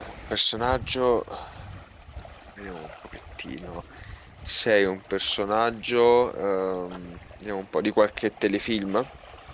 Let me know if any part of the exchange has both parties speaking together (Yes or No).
No